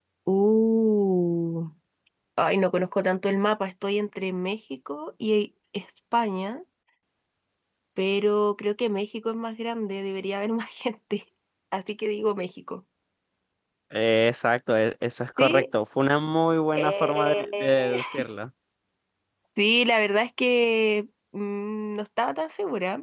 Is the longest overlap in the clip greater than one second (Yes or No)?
Yes